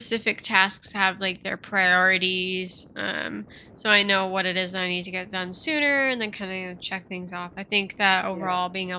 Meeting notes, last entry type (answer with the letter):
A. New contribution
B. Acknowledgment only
B